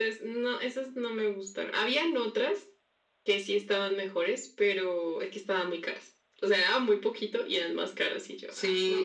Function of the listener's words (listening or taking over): taking over